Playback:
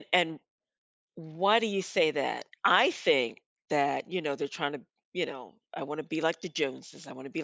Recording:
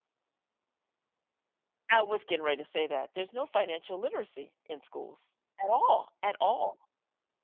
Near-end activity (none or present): present